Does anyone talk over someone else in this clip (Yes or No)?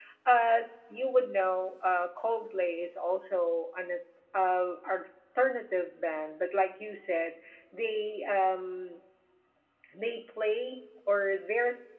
No